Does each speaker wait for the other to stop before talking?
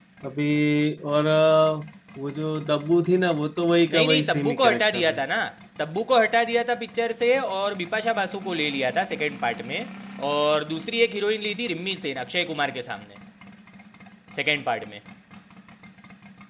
No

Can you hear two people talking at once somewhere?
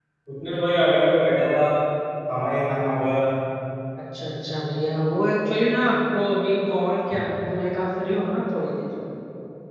No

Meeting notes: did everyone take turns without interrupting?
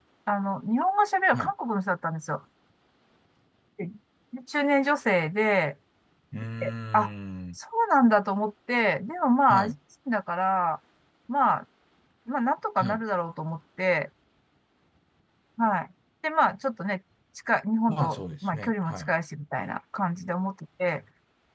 No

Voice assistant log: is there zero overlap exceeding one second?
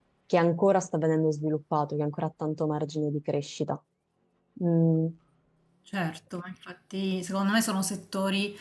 Yes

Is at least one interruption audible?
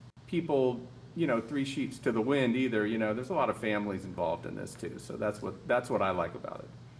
No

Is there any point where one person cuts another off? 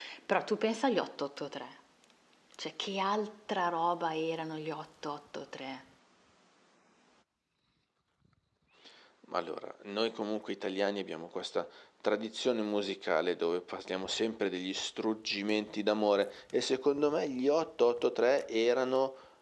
No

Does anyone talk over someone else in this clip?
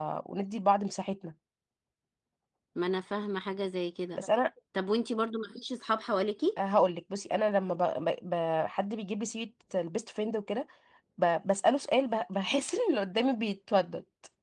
No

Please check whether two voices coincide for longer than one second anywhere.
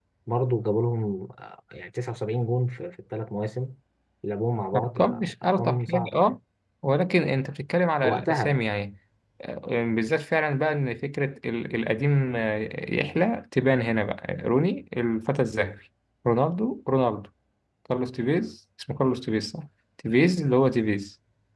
Yes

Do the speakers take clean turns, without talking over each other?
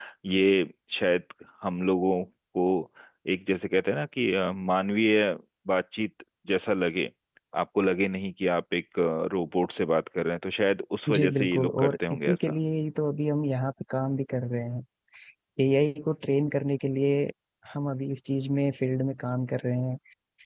No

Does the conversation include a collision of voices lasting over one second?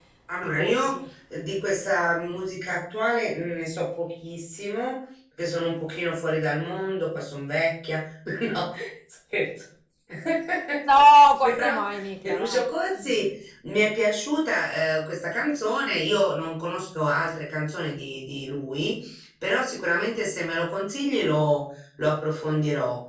Yes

